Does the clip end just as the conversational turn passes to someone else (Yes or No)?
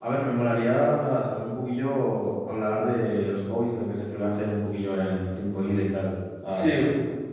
Yes